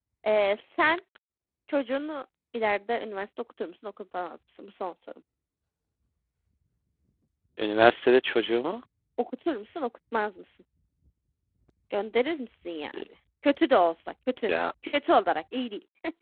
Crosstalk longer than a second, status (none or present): none